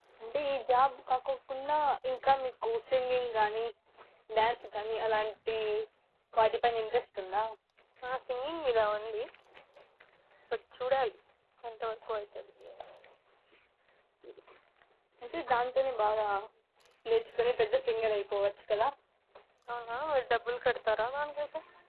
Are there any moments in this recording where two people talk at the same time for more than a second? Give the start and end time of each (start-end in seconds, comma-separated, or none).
none